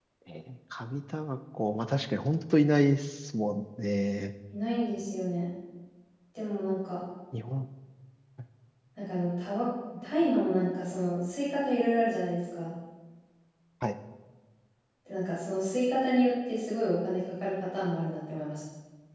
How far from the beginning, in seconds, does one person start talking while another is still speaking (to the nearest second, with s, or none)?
none